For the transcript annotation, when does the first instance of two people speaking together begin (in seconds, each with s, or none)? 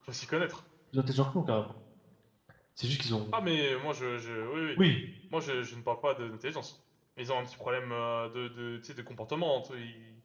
none